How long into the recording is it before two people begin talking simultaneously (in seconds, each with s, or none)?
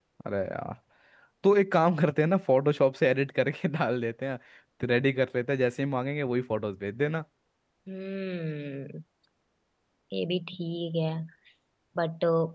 none